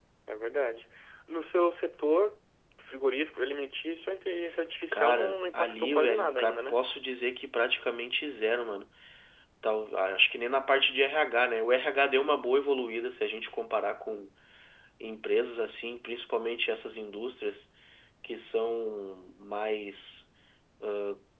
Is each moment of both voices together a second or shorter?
No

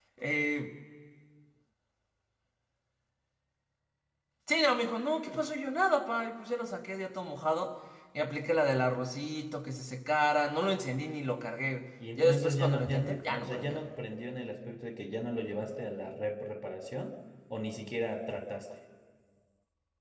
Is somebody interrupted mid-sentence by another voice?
Yes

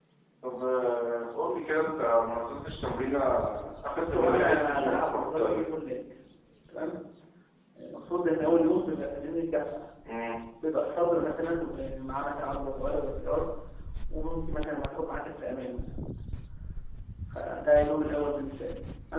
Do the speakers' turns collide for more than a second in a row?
Yes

